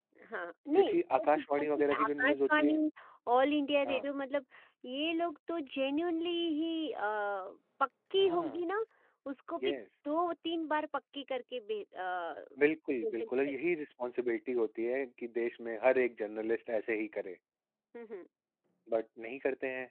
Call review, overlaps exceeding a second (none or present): present